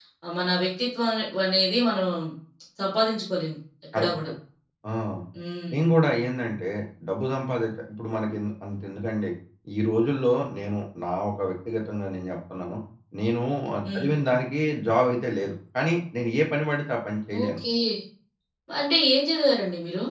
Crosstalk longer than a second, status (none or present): none